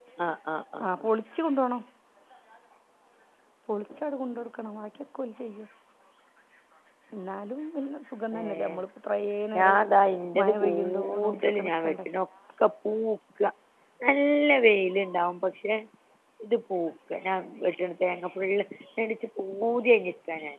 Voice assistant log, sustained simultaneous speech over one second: present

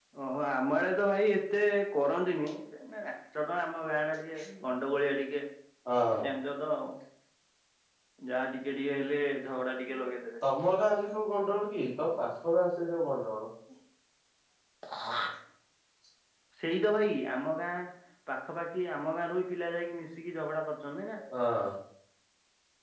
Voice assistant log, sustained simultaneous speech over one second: none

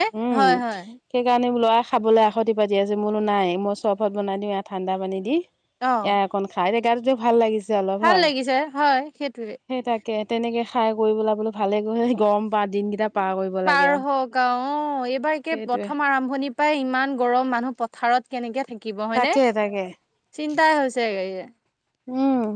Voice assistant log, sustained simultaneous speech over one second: none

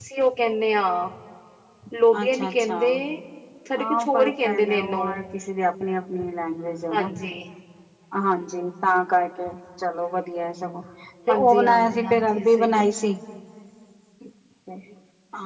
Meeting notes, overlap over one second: present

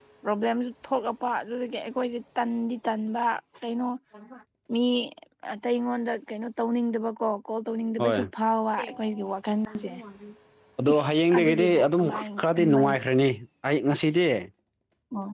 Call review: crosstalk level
present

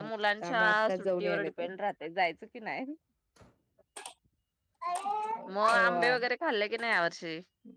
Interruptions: present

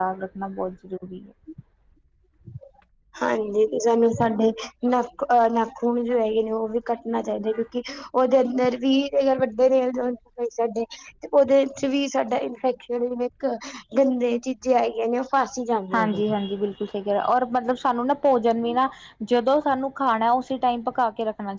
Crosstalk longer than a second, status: none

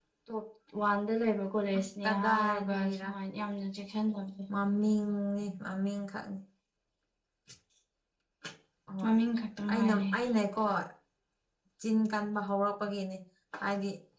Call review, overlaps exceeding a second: present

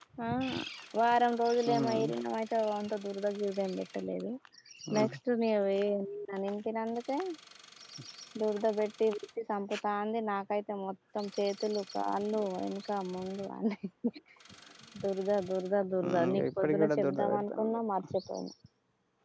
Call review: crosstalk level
present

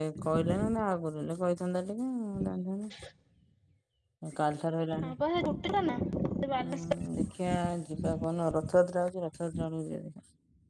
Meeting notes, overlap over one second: none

